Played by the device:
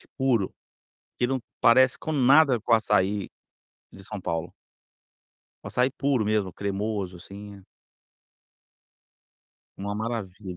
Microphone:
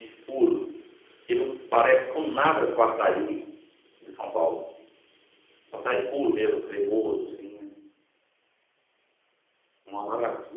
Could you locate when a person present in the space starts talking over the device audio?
none

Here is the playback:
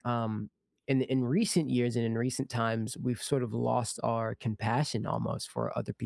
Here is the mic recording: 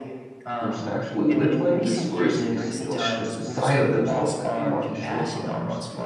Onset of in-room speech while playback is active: 1 s

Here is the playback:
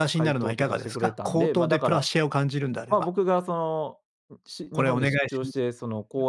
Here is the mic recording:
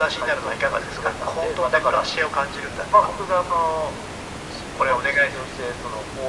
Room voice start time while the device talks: none

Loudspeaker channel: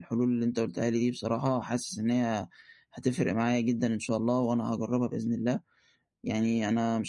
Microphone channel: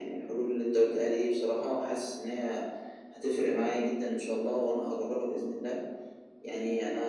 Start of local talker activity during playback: none

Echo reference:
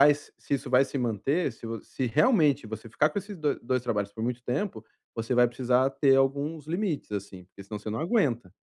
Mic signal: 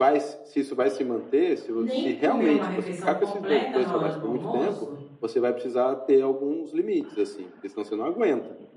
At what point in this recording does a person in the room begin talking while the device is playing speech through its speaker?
2 s

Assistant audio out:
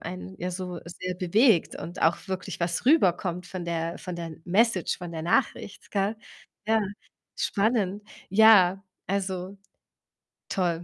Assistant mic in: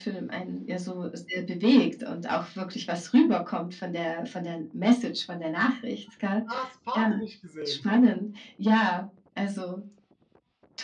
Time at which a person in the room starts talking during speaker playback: 6 s

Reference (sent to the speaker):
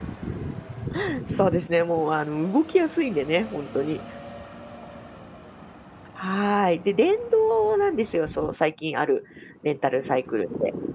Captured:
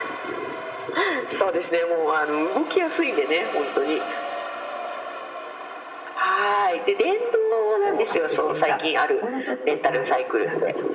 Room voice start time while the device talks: 8 s

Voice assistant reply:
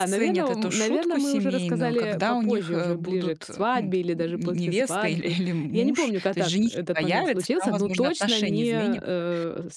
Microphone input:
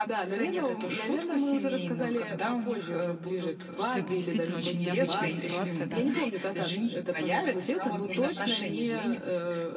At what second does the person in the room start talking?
4 s

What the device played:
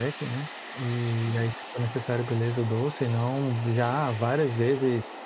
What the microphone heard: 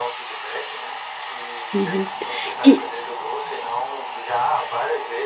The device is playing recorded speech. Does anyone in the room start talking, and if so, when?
2 s

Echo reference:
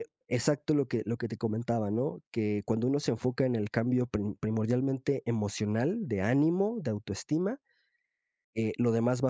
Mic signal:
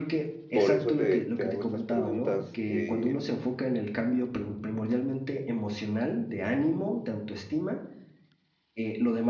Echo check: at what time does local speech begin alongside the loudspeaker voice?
0 s

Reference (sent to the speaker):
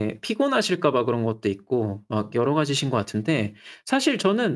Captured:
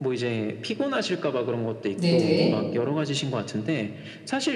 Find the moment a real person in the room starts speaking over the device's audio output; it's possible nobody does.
2 s

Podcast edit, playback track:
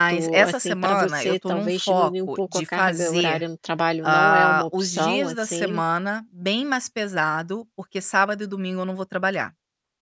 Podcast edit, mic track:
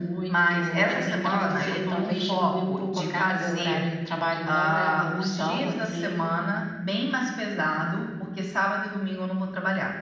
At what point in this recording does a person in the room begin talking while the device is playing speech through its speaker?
none

